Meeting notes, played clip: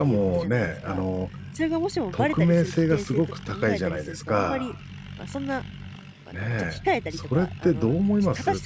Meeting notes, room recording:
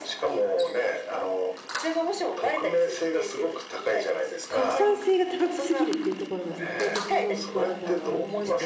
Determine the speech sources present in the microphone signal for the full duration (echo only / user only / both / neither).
both